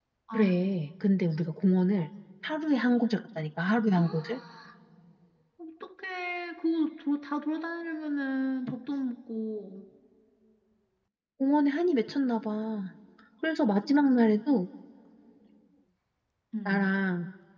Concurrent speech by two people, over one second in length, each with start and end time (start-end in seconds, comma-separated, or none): none